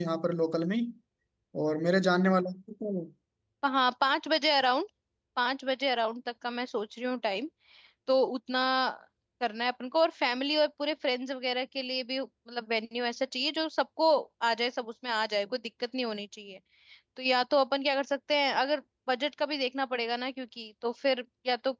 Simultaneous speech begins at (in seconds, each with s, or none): none